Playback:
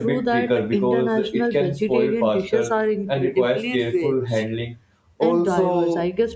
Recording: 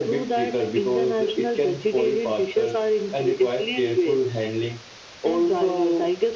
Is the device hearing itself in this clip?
Yes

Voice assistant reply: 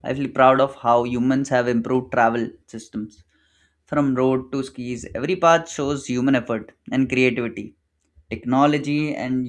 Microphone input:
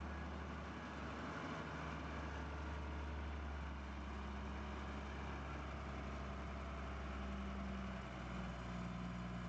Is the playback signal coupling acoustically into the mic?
No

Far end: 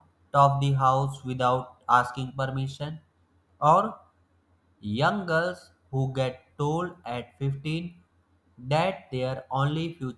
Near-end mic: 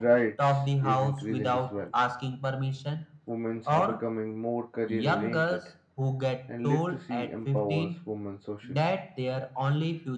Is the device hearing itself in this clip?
Yes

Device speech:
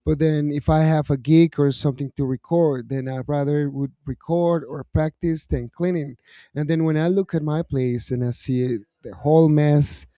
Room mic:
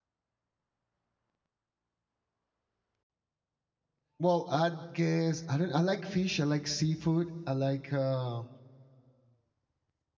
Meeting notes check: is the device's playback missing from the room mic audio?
Yes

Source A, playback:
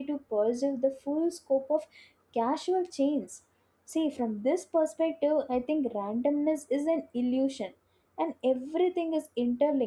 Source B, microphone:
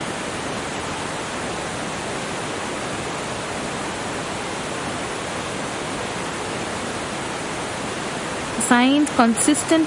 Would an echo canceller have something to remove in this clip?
No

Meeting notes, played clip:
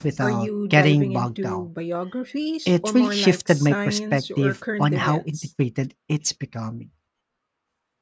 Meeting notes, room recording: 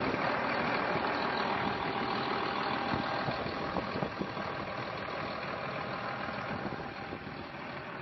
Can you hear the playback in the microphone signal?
No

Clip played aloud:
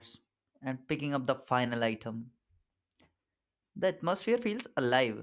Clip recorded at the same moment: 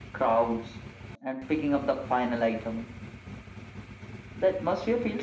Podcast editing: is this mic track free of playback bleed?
No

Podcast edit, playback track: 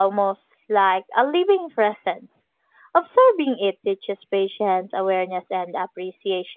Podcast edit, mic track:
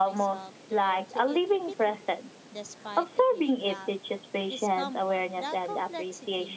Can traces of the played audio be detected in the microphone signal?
Yes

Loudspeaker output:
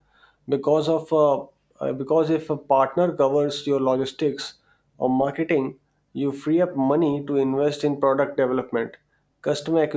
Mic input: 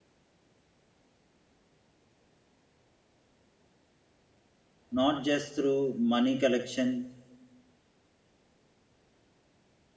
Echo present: No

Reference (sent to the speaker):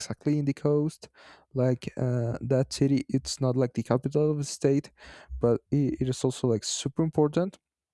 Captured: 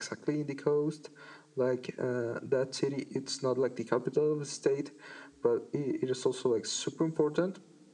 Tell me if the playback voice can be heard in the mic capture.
Yes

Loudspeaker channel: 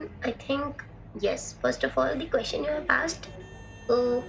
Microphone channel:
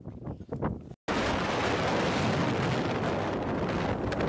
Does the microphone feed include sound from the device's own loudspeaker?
No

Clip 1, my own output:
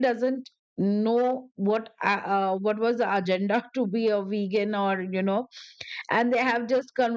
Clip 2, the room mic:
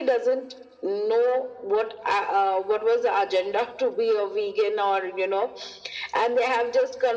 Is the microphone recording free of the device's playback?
No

